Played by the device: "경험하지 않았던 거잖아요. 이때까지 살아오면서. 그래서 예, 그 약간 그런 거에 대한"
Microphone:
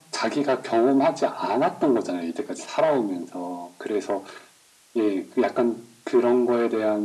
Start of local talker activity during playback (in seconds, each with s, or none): none